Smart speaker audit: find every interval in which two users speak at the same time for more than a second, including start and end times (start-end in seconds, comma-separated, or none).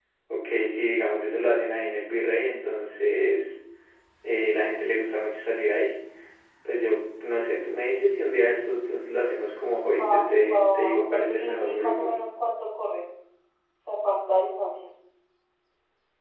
10.5-12.1